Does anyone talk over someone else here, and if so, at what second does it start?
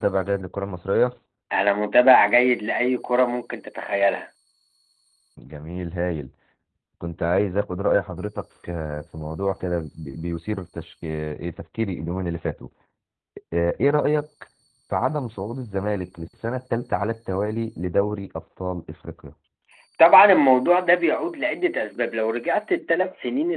none

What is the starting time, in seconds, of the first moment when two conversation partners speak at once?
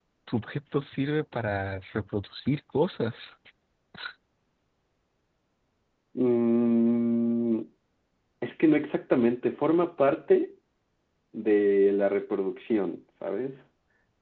none

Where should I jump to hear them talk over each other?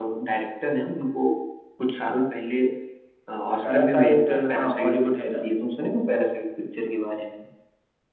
3.6 s

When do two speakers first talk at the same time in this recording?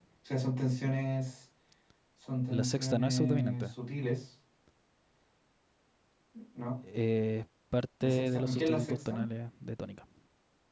2.5 s

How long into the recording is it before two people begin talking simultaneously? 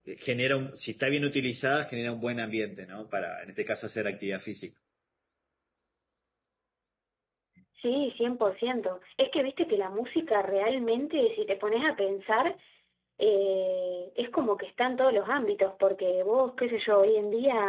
none

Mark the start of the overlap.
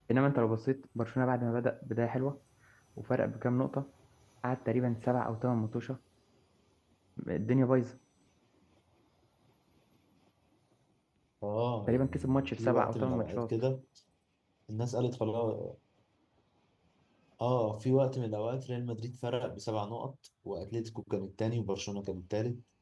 11.9 s

